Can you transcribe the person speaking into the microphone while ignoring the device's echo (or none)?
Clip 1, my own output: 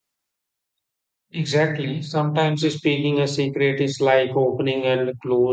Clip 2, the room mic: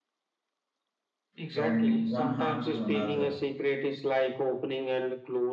from one heart to another.